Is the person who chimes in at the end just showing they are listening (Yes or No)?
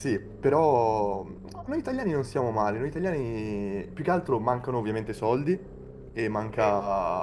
Yes